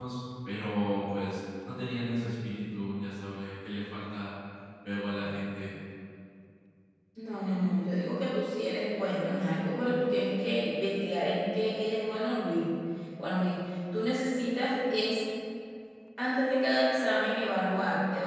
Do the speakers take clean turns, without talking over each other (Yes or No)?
Yes